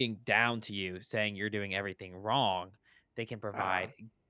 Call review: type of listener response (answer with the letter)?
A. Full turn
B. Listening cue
B